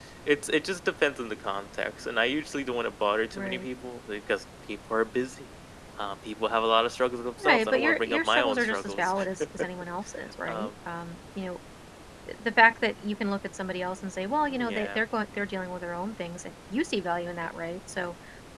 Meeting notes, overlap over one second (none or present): present